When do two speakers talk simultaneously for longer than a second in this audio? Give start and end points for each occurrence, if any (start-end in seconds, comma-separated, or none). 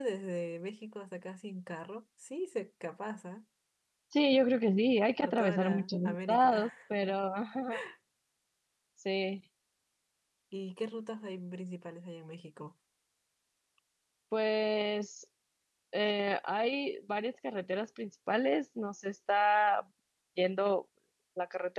5.2-6.7